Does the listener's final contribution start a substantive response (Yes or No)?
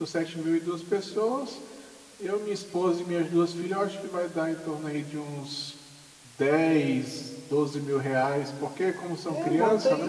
Yes